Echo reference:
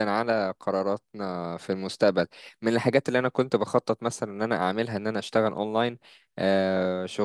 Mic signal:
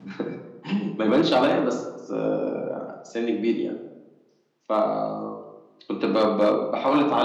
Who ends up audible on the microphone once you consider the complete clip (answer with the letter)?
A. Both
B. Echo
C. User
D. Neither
C